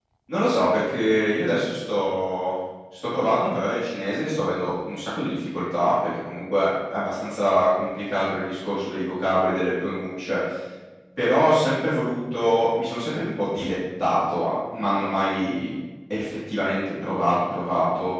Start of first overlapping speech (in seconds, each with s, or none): none